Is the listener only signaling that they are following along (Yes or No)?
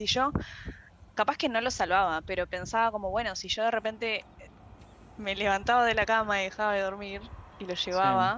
Yes